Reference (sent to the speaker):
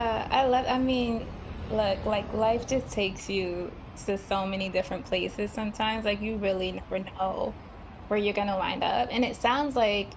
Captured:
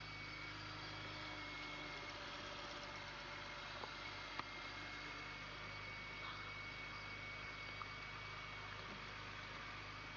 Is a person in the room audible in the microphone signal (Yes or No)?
No